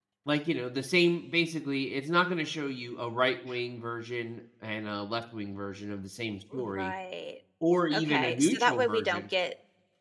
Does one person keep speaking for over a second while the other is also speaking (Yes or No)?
Yes